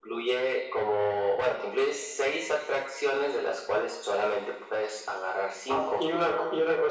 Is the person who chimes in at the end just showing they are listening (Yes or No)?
No